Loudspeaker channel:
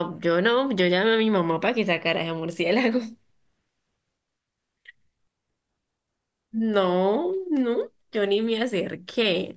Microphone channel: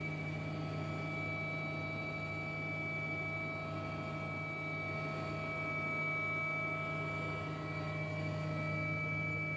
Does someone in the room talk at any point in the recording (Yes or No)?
No